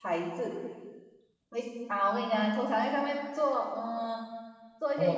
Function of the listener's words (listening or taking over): taking over